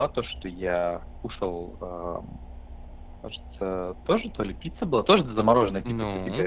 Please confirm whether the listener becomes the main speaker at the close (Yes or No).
No